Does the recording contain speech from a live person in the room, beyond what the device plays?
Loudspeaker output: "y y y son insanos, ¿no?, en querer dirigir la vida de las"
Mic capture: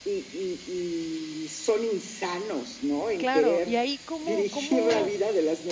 Yes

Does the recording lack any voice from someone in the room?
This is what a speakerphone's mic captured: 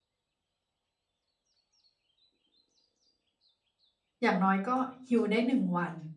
No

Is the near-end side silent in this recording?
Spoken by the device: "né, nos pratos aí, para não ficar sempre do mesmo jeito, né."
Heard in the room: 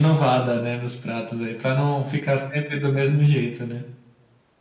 Yes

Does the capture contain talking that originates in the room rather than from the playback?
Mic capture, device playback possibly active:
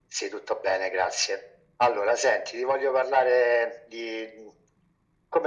No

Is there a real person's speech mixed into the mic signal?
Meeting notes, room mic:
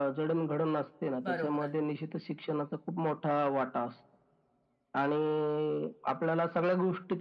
Yes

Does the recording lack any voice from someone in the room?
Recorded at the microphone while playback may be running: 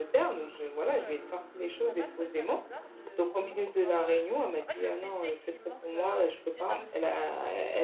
No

